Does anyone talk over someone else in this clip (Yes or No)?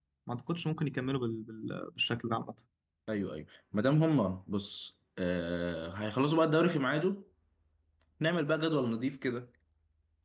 No